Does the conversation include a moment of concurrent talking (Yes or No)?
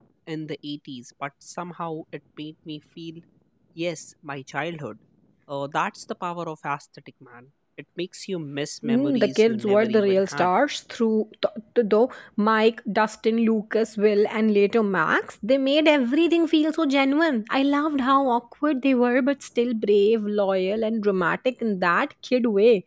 Yes